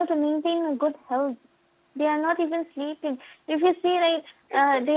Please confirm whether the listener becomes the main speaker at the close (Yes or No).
No